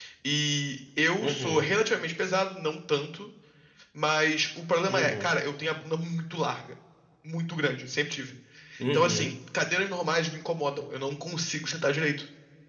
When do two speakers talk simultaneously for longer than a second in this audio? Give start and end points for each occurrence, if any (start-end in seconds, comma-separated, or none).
none